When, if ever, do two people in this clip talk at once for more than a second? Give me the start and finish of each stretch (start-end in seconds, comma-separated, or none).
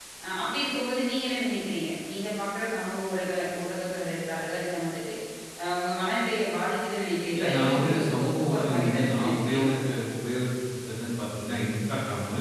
7.3-9.7